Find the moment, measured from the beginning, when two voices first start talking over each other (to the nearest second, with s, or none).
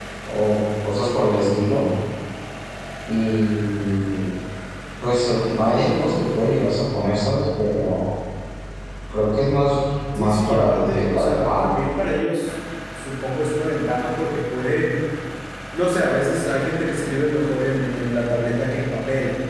10 s